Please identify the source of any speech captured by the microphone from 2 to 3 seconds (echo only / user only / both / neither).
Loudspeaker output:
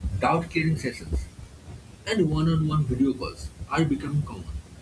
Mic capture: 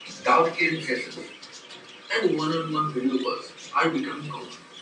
echo only